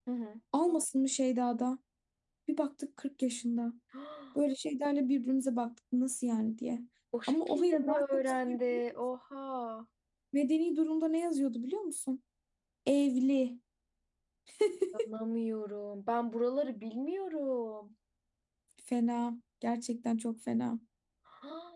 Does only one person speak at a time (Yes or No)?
No